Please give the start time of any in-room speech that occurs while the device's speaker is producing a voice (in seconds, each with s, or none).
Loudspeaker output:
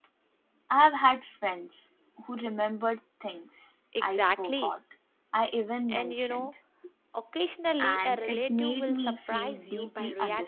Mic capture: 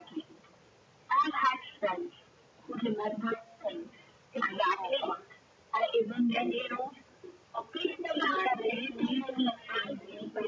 none